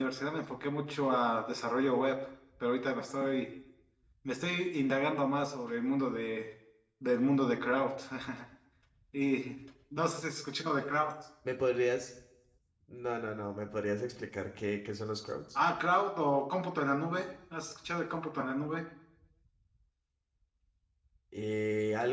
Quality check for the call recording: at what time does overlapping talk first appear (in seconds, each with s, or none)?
none